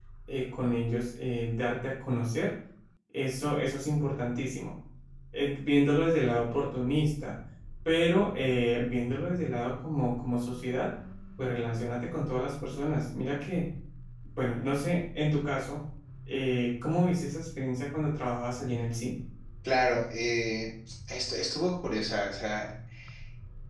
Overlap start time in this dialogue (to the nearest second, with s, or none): none